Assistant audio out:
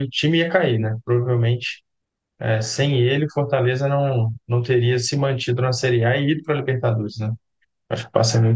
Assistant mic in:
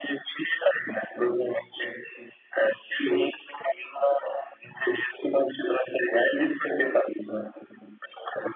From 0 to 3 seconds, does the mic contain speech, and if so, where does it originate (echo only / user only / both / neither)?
echo only